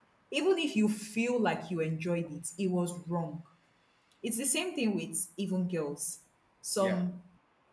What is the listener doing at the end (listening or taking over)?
listening